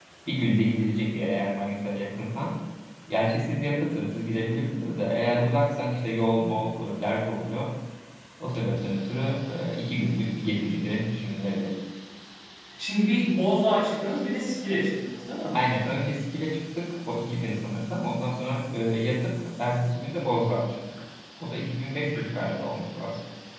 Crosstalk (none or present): none